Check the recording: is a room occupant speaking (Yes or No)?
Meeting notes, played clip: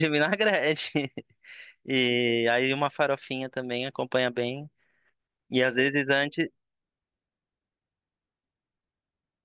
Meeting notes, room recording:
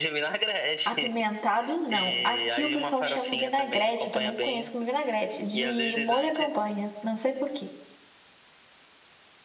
Yes